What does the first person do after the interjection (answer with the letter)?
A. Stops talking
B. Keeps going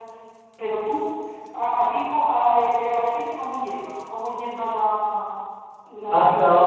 A